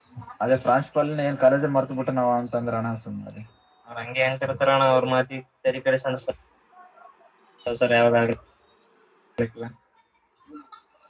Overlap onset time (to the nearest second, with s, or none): none